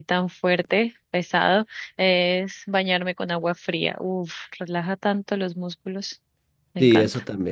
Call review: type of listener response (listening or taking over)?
taking over